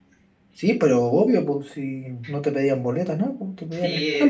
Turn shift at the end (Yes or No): Yes